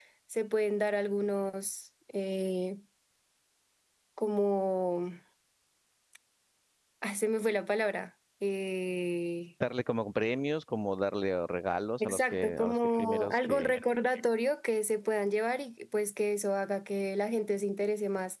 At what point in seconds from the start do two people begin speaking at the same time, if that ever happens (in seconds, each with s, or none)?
12.0 s